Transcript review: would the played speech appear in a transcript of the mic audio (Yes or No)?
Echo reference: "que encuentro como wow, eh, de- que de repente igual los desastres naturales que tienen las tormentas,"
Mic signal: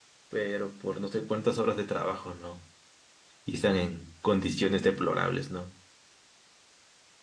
No